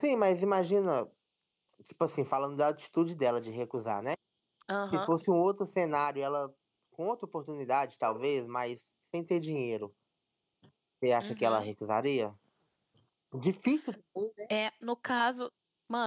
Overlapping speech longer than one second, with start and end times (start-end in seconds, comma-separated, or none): none